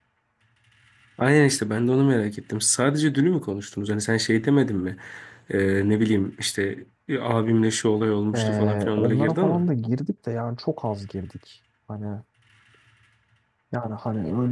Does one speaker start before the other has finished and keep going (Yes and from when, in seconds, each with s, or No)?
Yes, from 8.3 s